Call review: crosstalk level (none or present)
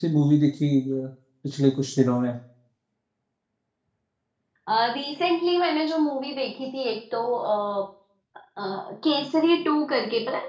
none